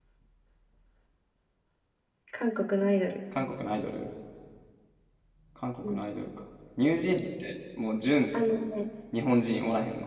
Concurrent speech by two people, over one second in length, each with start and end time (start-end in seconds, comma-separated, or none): none